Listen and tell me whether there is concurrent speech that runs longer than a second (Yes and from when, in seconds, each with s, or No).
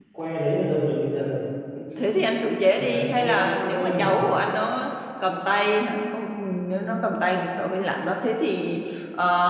Yes, from 2.8 s